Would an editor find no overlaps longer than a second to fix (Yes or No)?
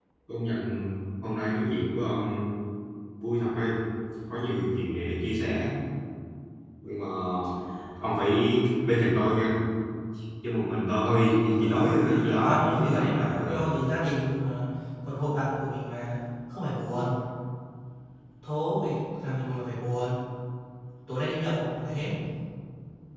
No